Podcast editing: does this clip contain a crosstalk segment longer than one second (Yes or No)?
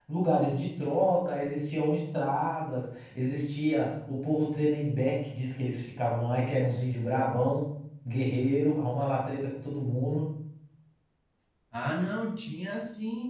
No